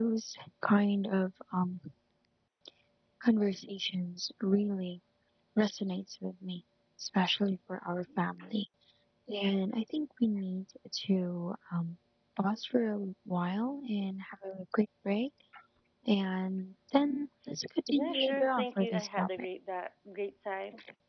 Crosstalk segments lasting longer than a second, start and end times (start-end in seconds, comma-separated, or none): 17.9-19.5